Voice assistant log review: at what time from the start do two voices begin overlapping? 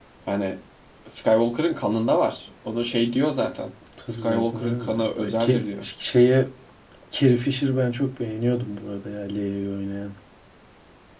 4.2 s

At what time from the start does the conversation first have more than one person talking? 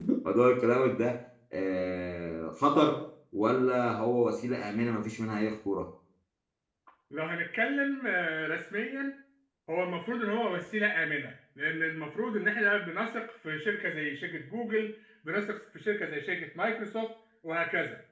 none

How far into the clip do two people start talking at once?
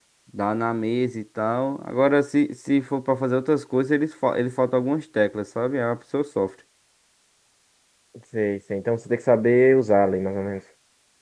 none

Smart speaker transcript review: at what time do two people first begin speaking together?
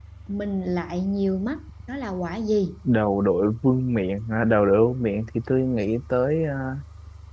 none

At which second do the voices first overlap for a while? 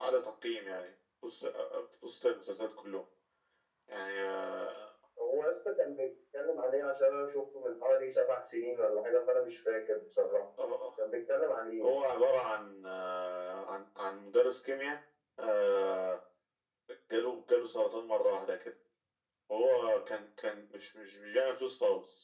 none

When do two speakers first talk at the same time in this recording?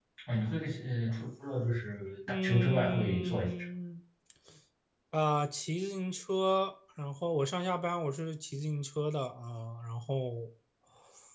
2.3 s

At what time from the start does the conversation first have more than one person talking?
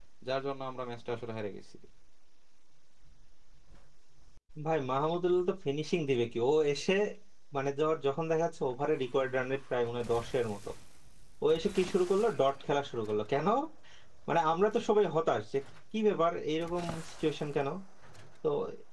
none

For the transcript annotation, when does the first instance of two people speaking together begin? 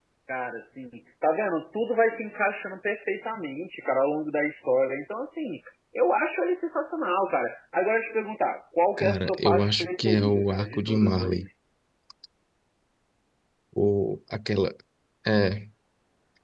9.0 s

